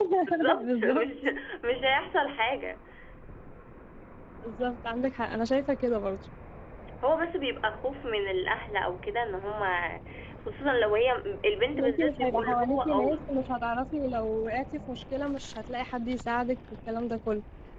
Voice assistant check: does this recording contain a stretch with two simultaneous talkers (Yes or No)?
Yes